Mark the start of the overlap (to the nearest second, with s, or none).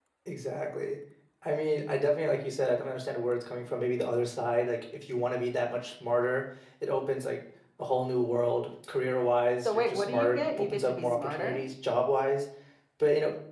10 s